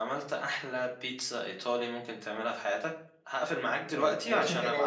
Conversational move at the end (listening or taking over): taking over